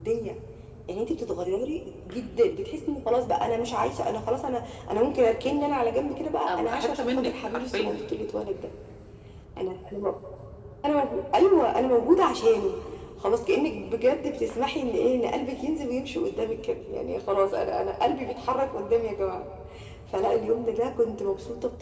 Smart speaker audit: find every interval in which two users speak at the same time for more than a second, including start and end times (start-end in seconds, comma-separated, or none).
6.5-8.0